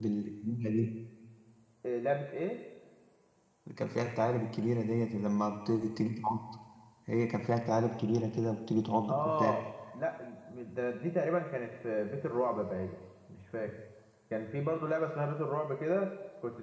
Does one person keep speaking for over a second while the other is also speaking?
No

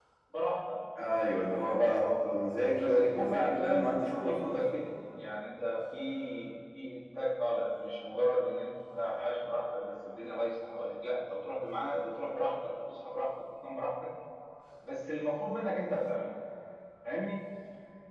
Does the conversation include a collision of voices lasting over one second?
Yes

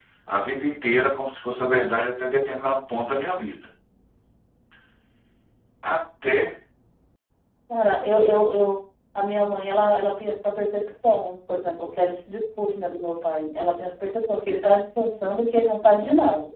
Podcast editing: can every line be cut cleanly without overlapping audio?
Yes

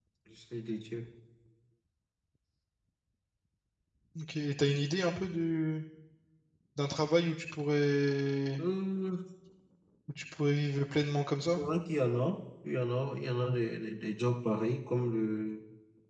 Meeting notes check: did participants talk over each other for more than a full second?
No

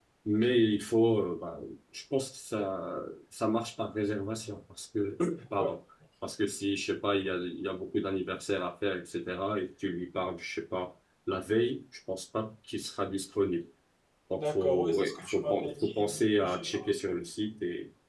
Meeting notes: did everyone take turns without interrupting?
No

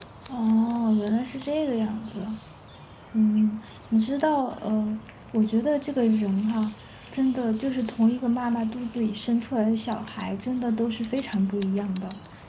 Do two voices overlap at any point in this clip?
No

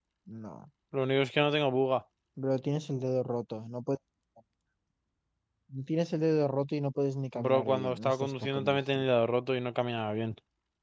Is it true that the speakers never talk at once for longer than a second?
No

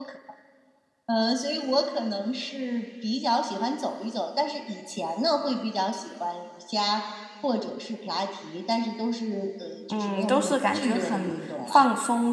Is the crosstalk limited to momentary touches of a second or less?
No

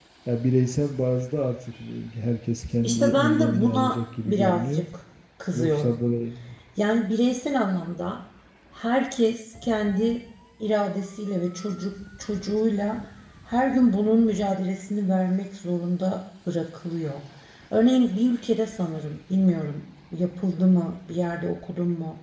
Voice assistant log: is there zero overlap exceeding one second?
No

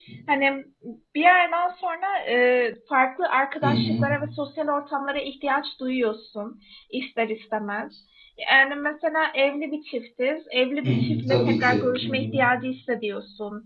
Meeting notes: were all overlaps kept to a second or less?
No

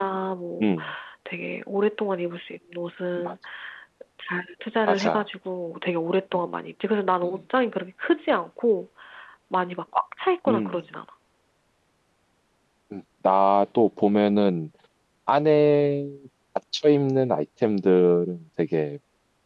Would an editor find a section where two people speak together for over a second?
No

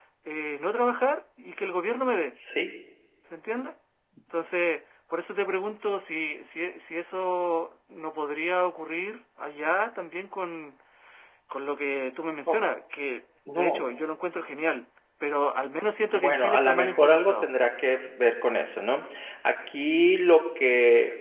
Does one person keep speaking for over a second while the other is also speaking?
Yes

